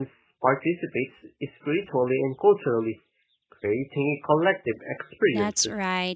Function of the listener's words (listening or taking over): taking over